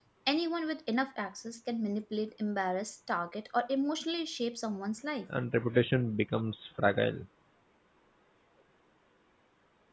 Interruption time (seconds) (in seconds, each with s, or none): none